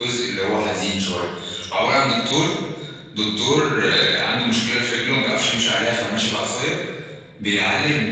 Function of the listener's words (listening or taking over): listening